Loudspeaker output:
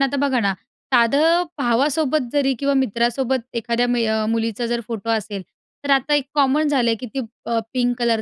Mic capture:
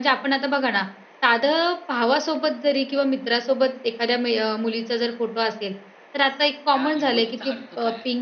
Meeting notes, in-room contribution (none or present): present